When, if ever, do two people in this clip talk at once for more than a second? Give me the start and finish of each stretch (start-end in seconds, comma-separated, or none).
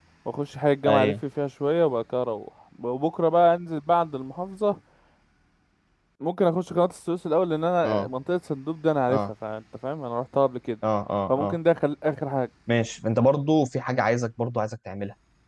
none